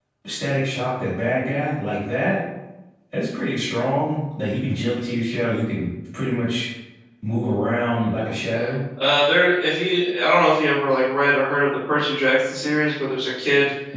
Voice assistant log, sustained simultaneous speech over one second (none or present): none